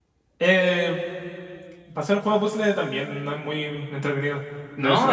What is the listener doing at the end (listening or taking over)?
taking over